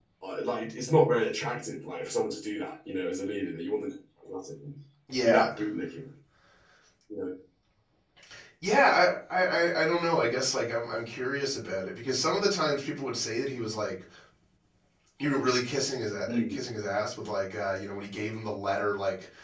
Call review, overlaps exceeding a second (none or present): none